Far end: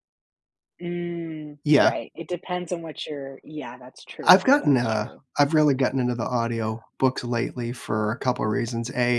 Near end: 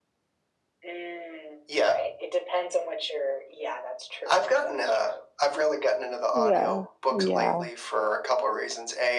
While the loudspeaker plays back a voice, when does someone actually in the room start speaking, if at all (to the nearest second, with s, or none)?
6 s